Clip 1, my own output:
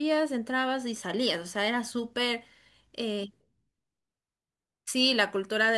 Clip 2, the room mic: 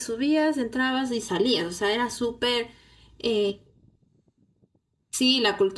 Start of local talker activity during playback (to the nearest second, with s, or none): none